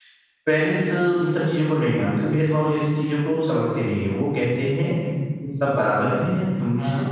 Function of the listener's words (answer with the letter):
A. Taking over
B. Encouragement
B